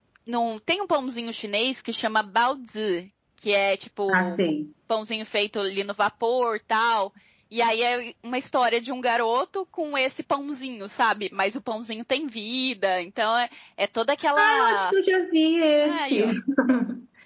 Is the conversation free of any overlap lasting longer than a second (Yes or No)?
Yes